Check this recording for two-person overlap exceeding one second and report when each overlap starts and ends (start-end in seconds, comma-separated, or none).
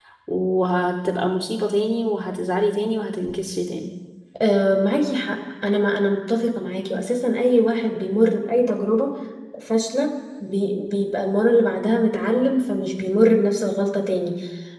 none